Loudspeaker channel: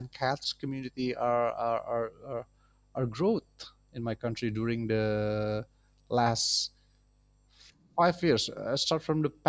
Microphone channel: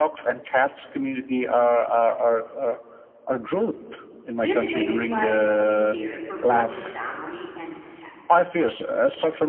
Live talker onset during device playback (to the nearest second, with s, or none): 4 s